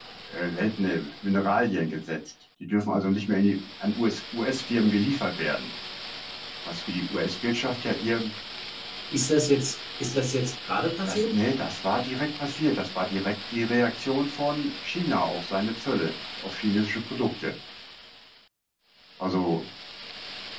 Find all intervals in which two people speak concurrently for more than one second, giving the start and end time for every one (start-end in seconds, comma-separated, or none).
none